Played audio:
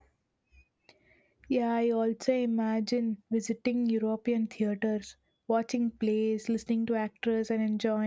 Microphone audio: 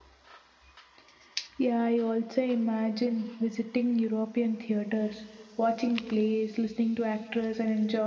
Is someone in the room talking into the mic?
No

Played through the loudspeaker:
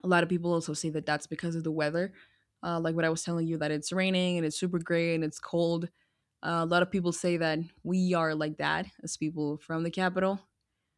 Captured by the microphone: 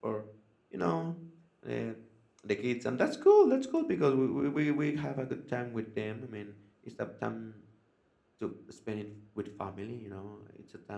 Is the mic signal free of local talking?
No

